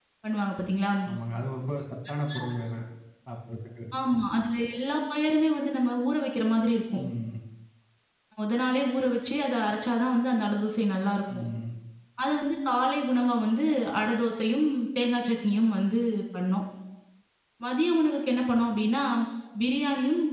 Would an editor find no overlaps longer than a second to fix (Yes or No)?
Yes